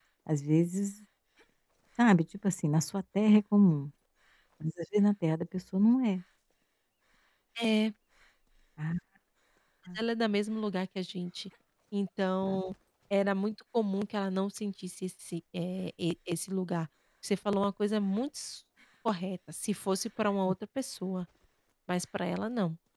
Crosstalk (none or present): none